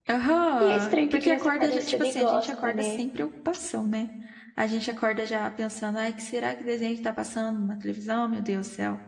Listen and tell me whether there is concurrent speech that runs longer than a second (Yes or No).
Yes